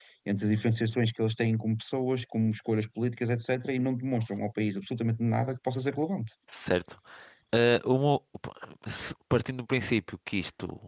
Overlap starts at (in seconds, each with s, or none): none